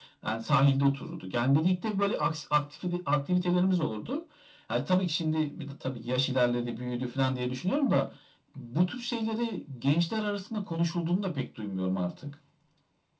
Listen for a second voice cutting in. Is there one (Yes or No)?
No